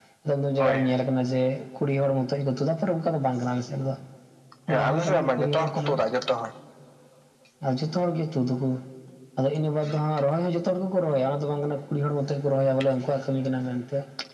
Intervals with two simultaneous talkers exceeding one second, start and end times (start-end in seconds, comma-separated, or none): 4.7-6.0